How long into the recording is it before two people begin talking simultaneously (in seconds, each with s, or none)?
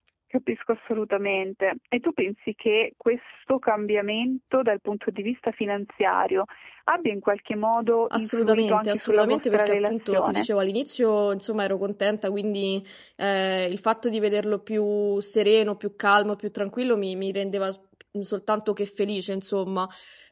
8.1 s